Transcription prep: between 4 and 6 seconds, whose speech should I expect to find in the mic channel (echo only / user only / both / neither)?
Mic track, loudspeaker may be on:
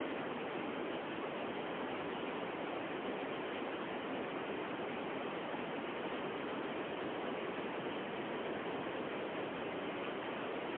neither